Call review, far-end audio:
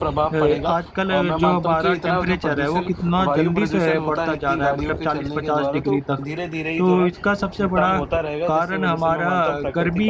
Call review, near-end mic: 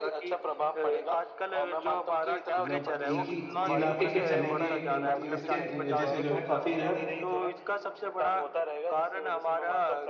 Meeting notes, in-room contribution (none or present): present